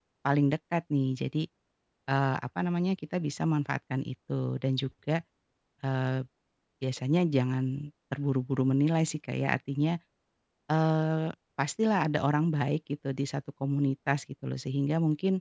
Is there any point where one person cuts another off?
No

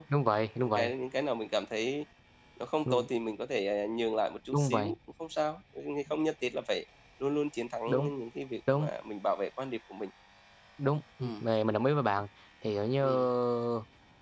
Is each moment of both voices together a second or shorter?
Yes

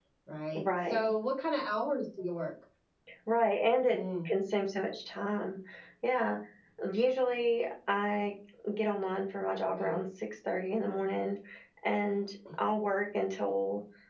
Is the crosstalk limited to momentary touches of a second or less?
Yes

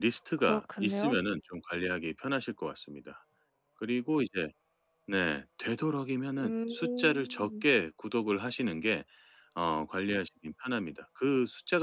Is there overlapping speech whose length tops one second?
Yes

